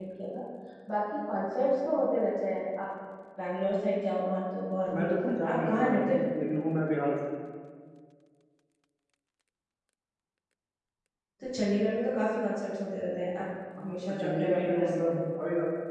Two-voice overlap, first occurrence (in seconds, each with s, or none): 5.0 s